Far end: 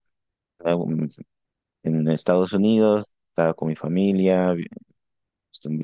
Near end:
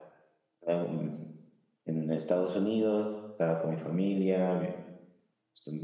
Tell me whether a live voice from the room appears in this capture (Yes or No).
No